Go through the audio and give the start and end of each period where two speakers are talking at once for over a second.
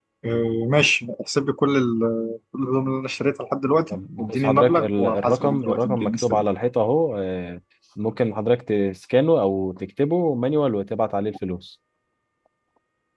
3.9-6.4

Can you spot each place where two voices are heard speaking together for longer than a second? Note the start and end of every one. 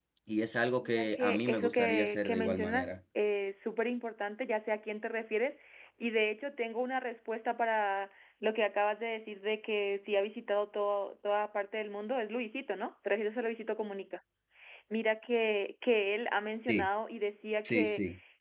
0.8-2.9

